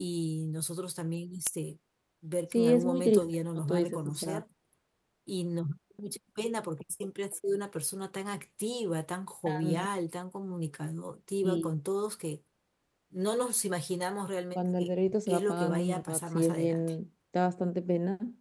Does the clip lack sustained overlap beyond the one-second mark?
No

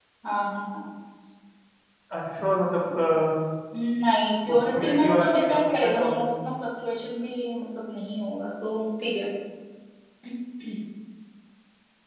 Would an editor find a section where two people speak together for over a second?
Yes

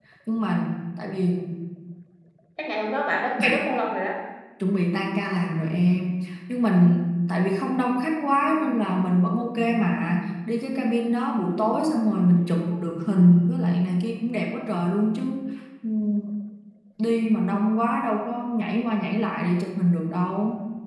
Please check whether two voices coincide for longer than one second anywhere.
No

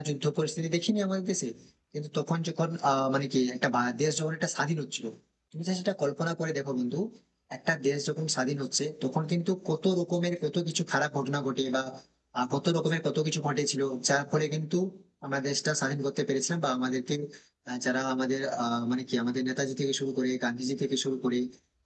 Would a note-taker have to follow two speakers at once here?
No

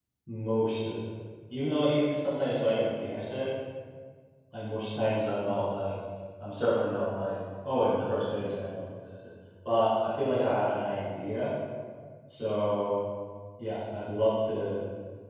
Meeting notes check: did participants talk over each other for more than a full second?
No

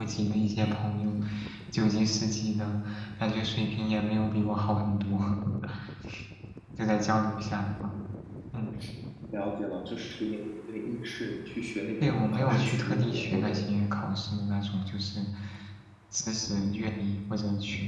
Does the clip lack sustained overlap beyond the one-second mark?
No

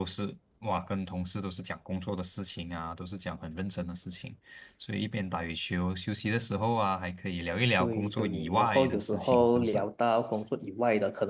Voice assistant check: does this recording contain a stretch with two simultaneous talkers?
Yes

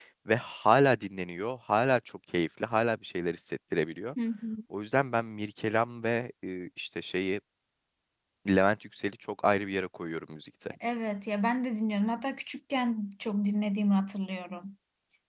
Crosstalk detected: No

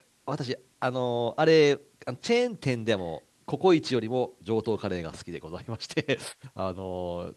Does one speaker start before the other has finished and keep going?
No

